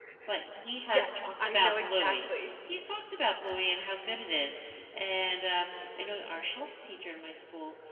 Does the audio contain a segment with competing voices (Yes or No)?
Yes